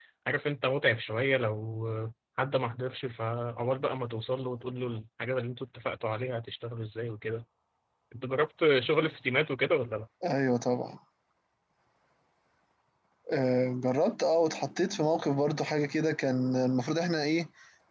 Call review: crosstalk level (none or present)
none